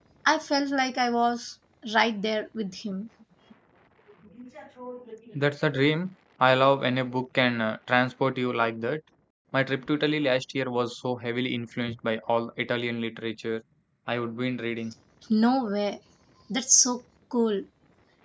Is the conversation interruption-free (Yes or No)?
Yes